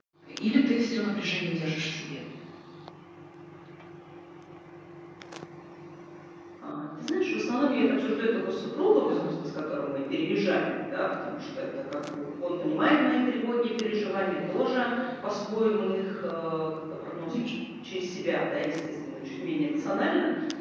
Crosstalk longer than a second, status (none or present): none